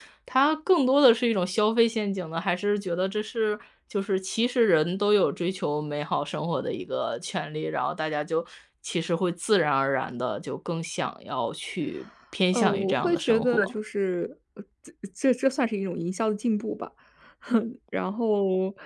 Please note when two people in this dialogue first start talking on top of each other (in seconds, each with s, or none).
12.5 s